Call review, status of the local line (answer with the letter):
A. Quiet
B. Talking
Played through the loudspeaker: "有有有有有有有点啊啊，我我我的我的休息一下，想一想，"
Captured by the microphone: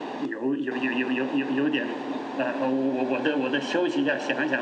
A